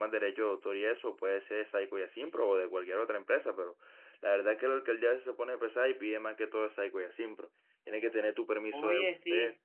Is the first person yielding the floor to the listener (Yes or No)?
Yes